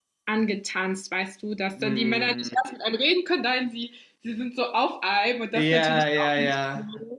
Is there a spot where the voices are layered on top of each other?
Yes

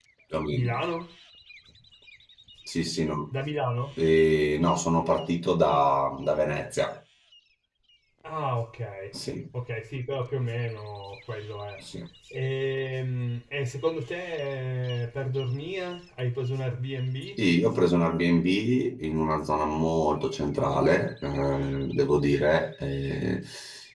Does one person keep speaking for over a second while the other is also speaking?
No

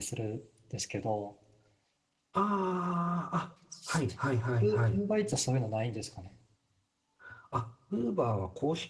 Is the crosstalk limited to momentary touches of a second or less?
Yes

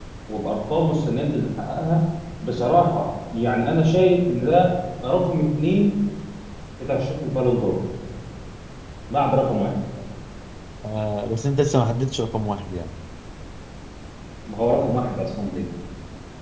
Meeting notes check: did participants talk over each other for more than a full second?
No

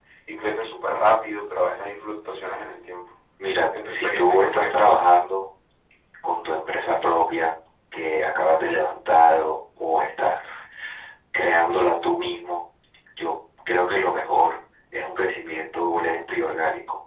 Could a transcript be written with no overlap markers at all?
No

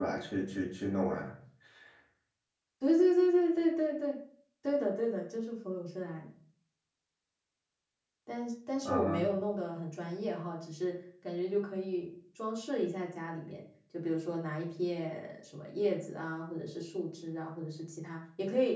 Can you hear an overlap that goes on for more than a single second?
No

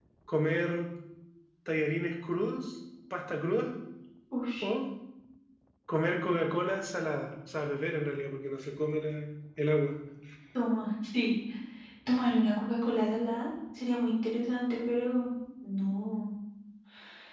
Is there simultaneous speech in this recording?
No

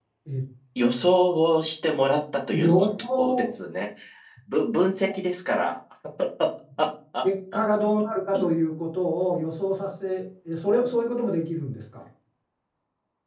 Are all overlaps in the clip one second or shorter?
Yes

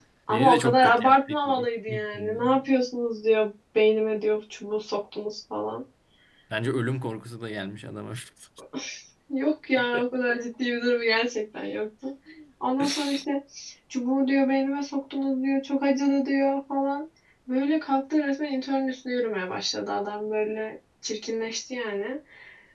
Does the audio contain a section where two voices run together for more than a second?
Yes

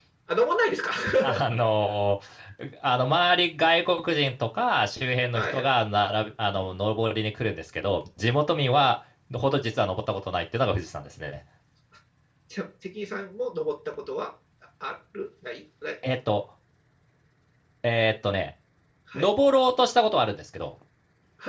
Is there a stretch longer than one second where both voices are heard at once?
No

